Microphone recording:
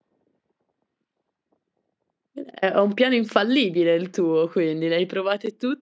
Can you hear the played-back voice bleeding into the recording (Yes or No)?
No